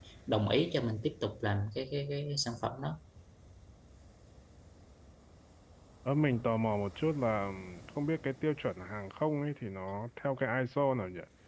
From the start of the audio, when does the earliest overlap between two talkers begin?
none

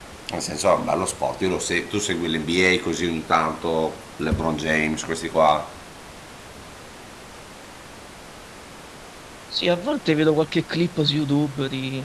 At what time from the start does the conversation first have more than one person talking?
none

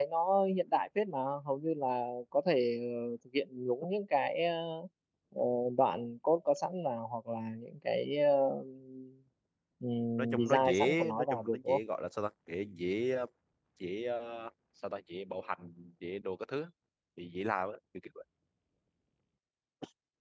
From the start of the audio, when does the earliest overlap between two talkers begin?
10.2 s

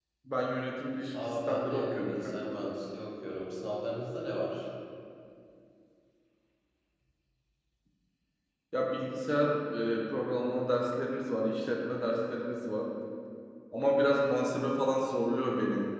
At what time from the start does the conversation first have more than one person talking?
1.1 s

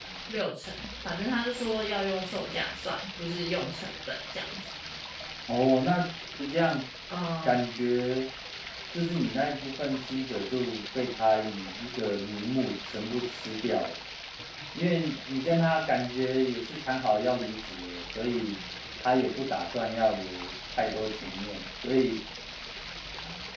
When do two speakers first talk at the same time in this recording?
none

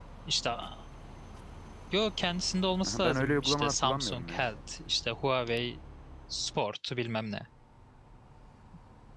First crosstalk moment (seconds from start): 2.8 s

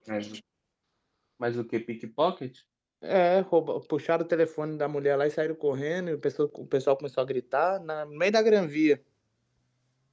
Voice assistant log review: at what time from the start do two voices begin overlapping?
none

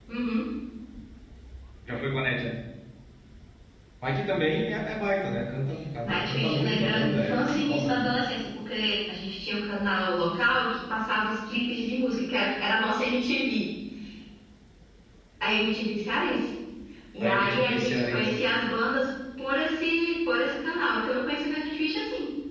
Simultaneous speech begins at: 6.0 s

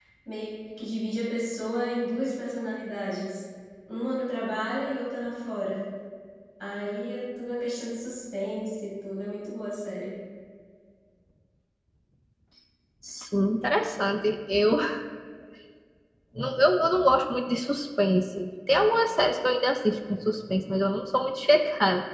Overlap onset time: none

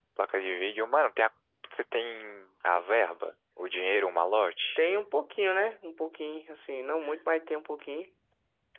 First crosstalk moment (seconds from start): none

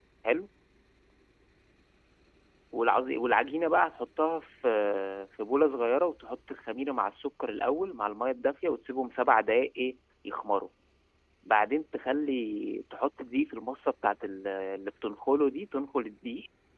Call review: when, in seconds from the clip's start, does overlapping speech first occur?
none

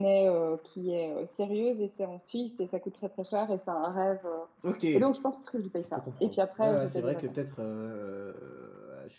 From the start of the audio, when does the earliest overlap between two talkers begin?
6.0 s

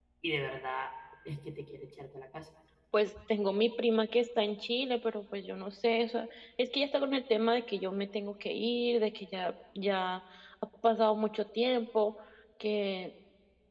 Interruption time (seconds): none

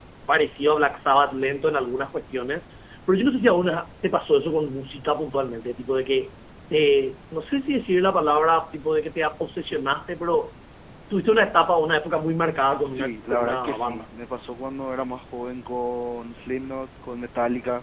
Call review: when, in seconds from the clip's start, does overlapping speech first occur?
12.6 s

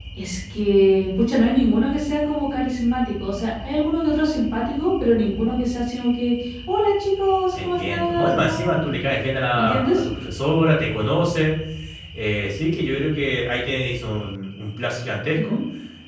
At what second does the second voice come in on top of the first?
7.6 s

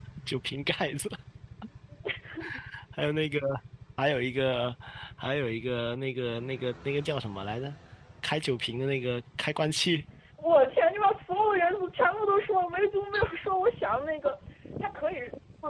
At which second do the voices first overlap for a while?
none

